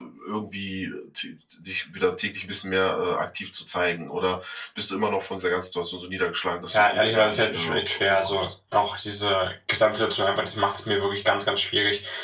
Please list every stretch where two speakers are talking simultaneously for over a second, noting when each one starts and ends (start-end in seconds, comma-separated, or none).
6.7-8.5